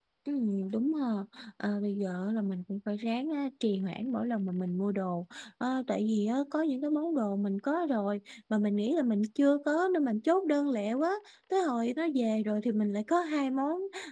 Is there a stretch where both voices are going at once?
No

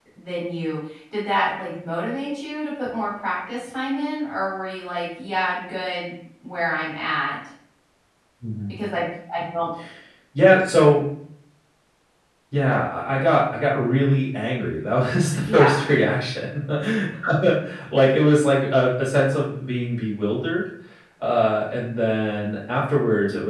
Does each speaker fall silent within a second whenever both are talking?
Yes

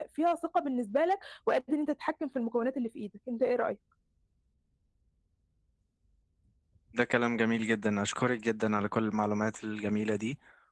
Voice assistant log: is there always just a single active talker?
Yes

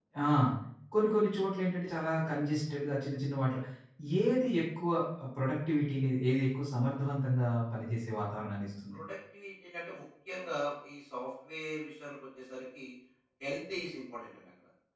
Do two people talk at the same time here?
No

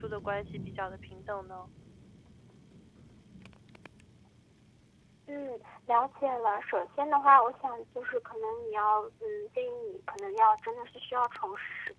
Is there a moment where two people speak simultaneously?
No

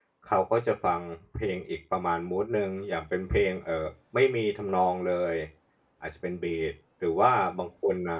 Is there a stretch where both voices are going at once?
No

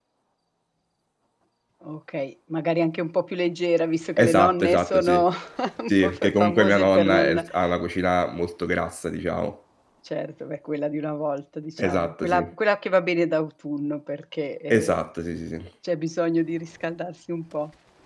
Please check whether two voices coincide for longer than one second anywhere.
Yes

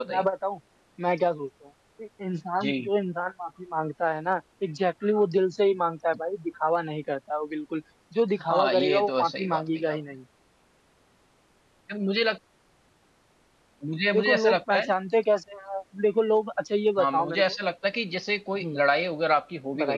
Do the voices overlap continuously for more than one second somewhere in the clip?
Yes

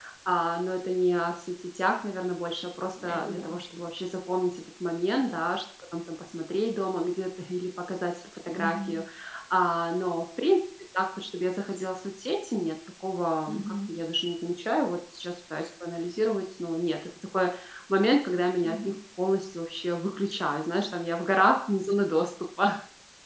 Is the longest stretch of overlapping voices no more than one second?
Yes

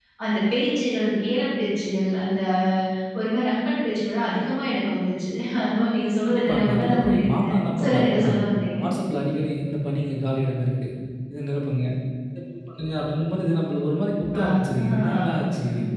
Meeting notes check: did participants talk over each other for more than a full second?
Yes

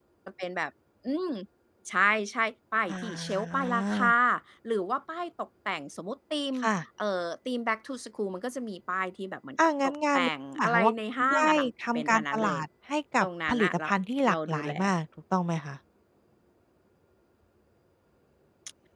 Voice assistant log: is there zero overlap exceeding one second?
No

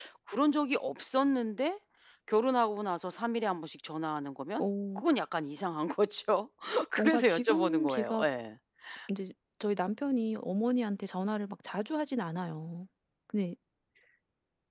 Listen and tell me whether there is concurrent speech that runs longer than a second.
Yes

